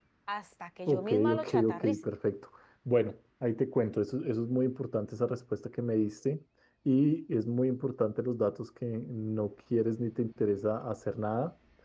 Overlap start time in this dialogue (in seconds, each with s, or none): 0.9 s